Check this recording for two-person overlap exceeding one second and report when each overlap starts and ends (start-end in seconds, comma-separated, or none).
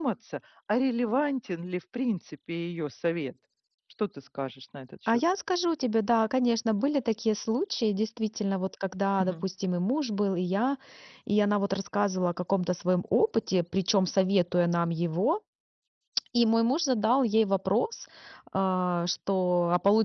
none